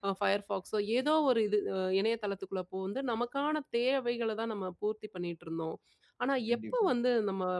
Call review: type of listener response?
listening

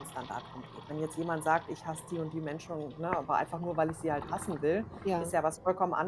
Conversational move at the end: listening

